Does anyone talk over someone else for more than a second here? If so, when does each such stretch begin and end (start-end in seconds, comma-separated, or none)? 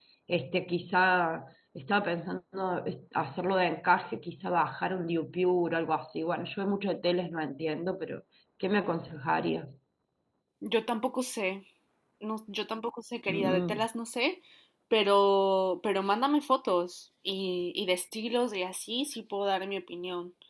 none